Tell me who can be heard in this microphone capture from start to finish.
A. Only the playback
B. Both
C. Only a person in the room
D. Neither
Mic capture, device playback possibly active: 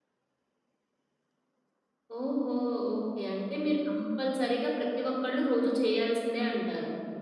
C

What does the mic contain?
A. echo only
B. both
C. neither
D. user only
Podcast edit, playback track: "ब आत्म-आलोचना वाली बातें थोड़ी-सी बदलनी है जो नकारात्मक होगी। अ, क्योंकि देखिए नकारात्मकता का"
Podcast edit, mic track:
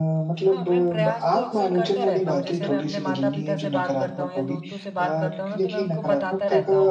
B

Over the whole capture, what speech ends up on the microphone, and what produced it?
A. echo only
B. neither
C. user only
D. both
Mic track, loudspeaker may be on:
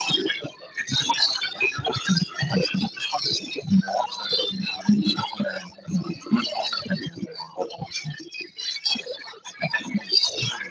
A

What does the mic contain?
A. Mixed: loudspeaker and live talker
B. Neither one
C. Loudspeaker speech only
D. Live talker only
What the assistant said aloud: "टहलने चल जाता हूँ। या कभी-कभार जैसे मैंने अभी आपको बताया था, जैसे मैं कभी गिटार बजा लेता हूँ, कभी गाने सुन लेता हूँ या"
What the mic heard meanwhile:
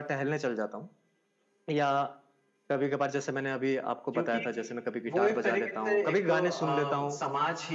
A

